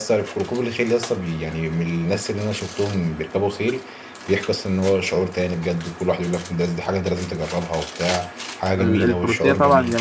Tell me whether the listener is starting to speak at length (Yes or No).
Yes